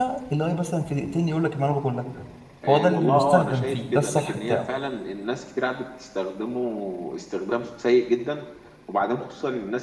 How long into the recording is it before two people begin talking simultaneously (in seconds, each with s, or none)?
2.7 s